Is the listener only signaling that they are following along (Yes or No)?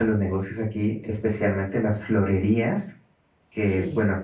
Yes